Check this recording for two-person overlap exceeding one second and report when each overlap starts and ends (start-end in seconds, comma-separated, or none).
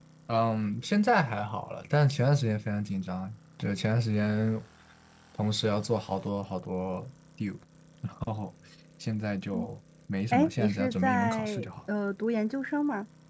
10.3-11.7